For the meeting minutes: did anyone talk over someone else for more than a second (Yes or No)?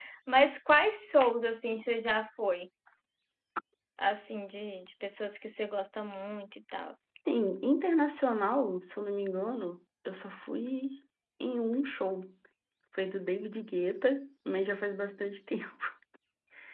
No